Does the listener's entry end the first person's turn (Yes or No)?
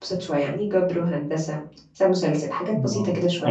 Yes